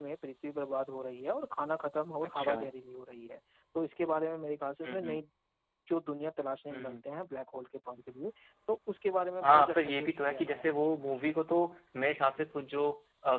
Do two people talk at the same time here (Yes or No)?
Yes